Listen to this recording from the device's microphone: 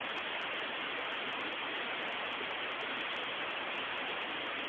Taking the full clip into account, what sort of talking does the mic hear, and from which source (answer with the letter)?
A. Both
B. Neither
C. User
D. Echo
B